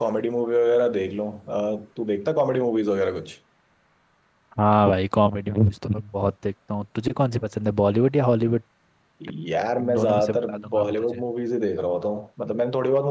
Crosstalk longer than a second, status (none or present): present